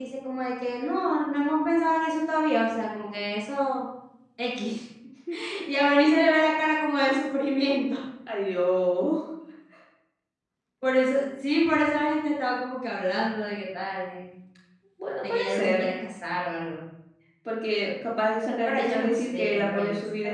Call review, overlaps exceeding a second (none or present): present